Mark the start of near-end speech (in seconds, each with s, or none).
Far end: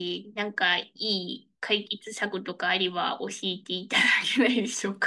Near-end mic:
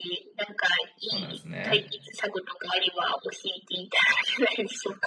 1.0 s